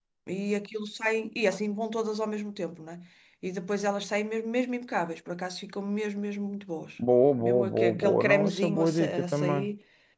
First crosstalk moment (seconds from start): 7.4 s

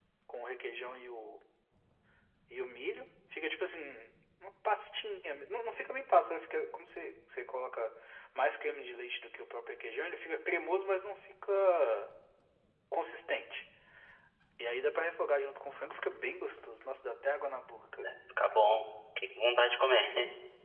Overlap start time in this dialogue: none

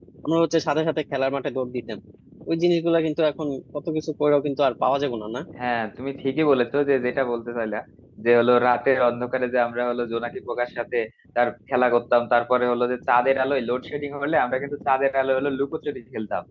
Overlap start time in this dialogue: none

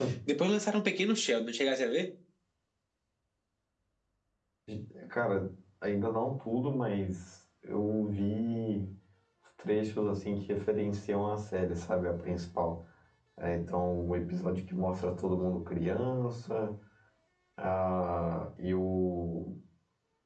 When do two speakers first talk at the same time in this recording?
none

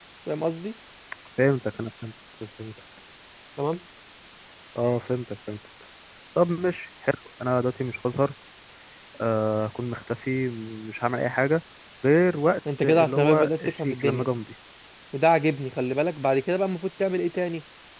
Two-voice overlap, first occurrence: 12.8 s

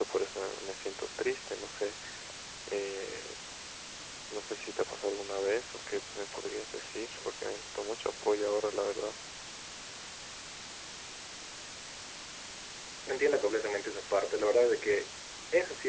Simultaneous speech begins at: none

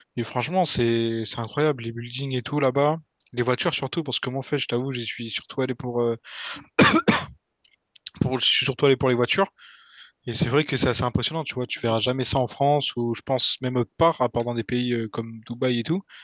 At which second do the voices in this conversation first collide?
none

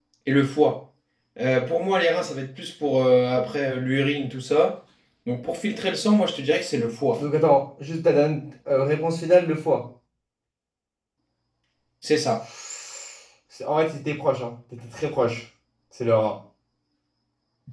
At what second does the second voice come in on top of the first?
none

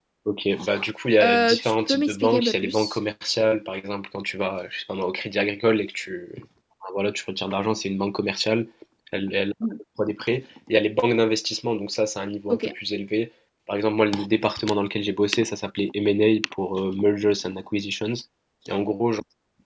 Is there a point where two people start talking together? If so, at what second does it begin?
1.2 s

